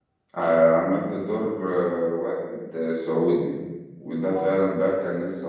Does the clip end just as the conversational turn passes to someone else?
No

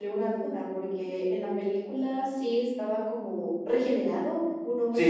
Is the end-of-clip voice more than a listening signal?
Yes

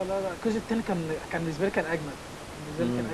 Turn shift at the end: Yes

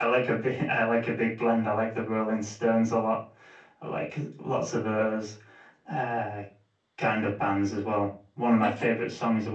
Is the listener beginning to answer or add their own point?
No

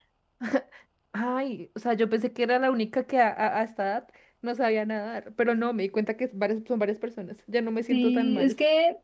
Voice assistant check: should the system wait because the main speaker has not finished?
No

